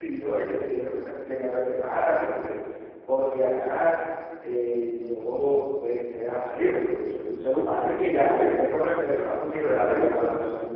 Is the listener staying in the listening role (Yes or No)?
No